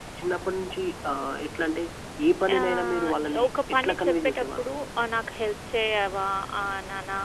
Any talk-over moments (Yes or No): Yes